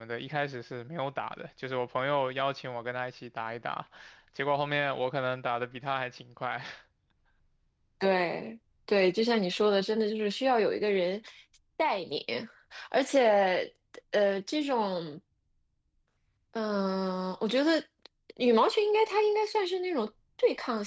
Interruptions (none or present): none